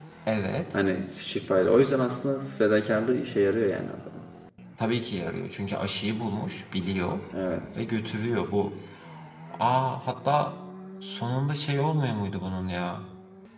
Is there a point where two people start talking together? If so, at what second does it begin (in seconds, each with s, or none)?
none